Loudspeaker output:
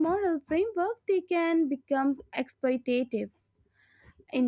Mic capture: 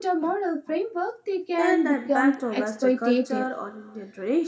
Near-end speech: present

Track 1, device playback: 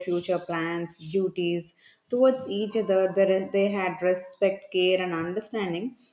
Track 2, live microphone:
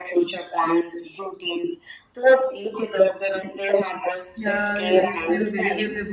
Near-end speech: present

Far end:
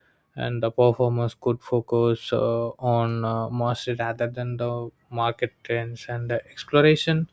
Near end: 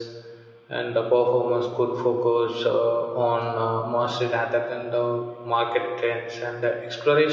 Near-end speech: none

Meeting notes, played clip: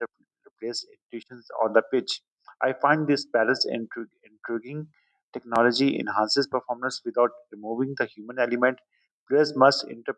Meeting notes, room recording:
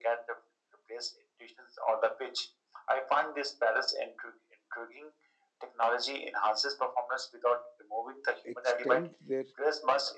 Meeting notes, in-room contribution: present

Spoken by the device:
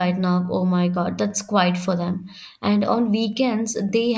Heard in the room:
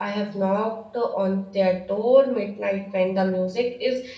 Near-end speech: present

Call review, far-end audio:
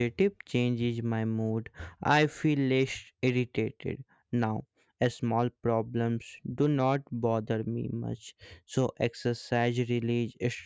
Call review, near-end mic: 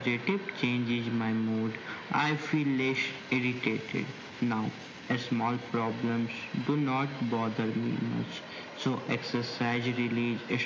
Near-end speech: none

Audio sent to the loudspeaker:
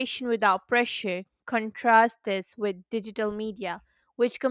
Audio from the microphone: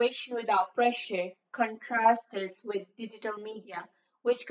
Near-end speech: none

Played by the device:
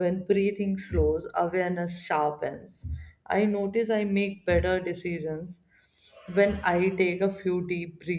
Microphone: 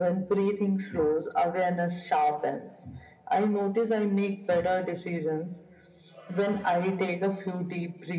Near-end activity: none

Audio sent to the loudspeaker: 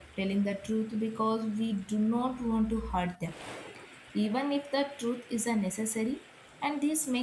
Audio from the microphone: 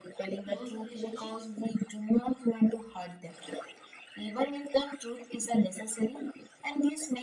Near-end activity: present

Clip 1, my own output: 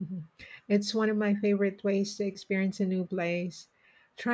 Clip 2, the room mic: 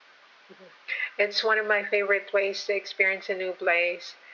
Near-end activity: none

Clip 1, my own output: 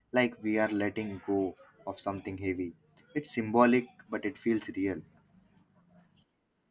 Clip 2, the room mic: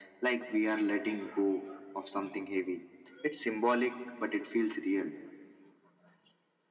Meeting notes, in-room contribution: none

